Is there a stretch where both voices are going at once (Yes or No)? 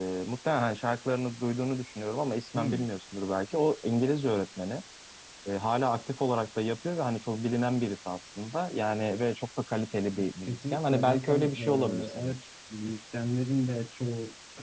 Yes